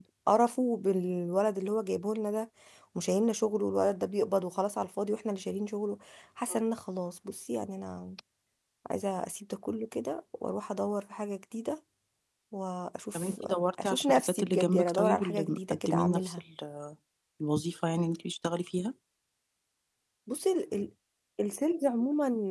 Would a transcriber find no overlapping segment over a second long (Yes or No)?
No